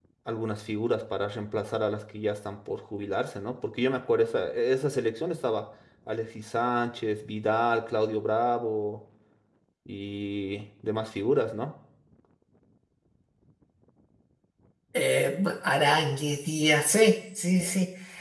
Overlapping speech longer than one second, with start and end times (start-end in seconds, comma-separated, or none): none